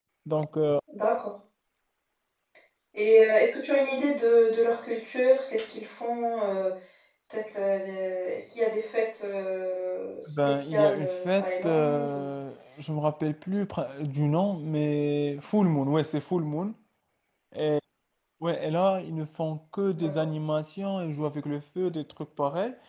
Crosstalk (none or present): present